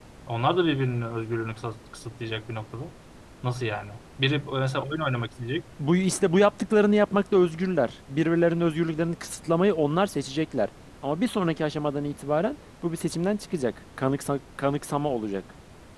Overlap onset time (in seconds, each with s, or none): none